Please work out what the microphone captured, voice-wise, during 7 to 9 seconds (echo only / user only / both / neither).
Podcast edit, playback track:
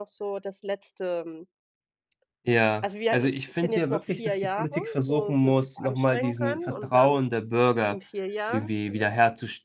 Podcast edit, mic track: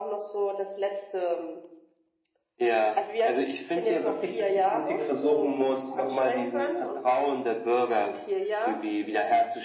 echo only